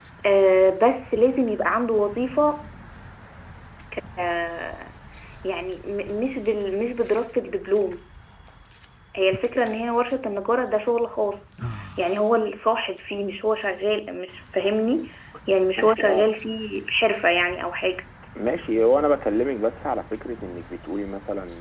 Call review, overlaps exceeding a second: none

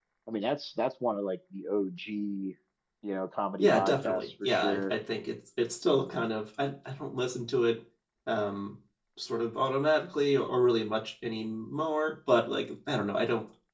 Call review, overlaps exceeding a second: present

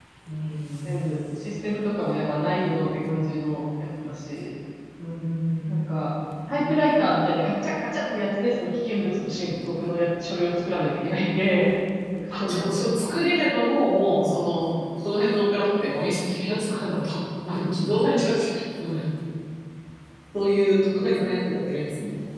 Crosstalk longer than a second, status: none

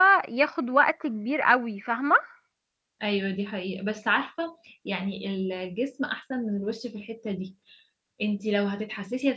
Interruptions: none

